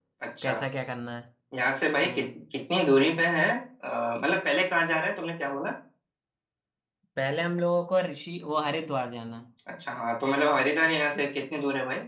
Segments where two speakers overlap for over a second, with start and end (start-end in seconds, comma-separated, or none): none